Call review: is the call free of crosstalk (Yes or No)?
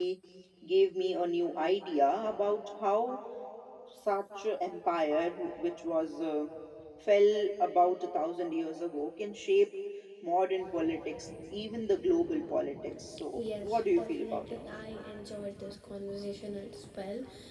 No